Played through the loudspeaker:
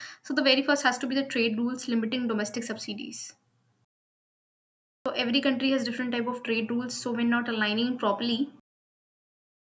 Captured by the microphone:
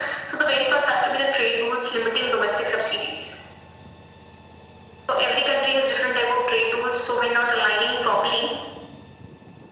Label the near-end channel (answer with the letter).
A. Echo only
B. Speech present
A